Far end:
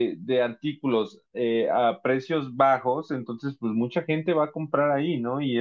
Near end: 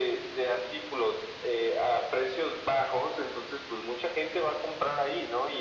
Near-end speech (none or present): none